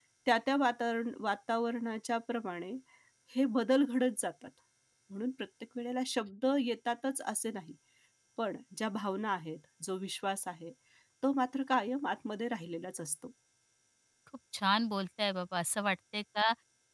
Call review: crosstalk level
none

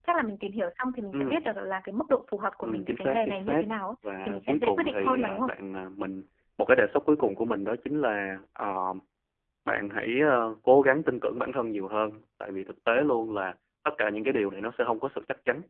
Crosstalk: present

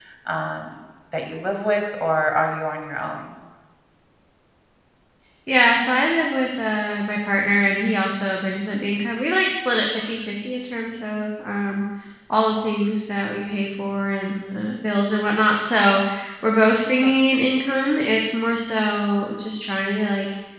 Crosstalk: none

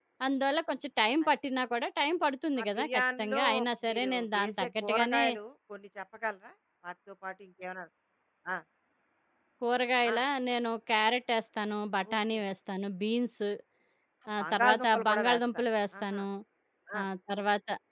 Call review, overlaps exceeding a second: present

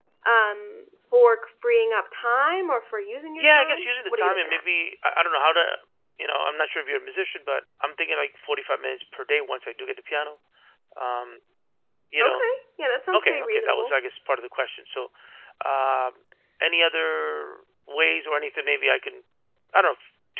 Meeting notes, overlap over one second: present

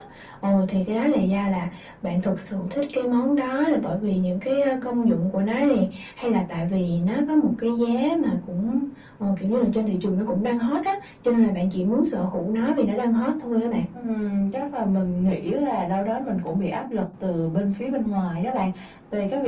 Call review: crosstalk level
none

